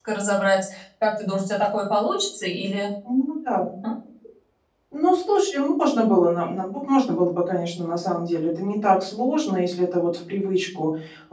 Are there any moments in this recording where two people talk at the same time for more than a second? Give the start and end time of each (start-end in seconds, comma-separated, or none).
none